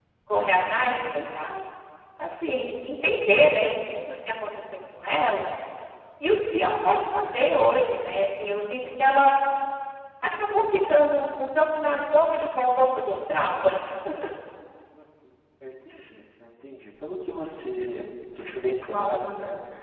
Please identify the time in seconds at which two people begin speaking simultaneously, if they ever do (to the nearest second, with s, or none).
none